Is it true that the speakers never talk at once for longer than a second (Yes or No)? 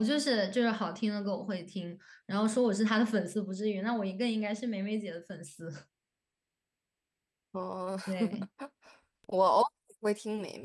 Yes